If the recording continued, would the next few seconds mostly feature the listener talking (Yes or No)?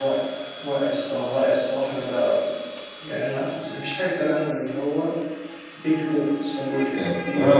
Yes